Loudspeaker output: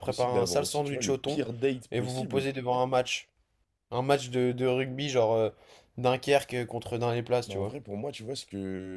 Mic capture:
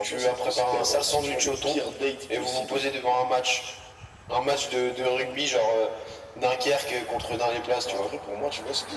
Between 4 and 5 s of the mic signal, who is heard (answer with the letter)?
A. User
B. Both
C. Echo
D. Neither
C